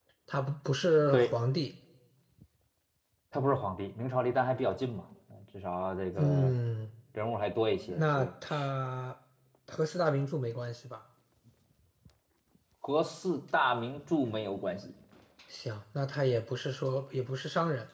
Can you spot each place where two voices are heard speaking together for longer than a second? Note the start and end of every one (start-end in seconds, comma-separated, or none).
none